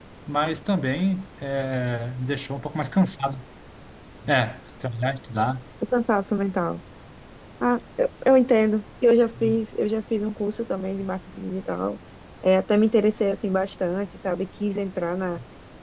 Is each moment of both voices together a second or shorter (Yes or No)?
Yes